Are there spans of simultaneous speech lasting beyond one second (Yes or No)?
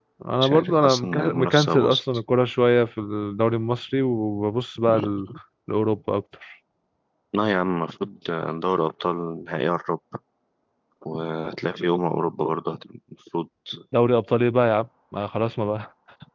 Yes